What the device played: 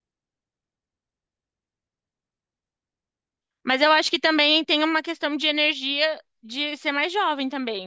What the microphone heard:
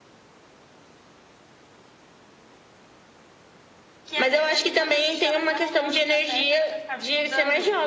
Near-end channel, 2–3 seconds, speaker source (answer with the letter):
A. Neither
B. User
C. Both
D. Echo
A